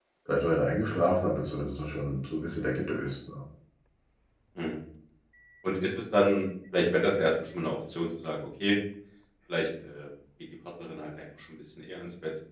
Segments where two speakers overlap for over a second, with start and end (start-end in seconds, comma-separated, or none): none